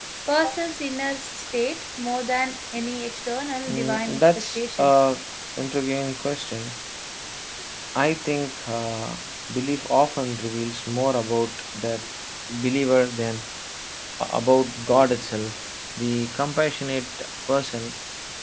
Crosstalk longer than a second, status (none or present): present